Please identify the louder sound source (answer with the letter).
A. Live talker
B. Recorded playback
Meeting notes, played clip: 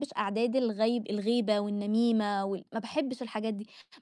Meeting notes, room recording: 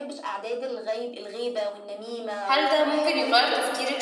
A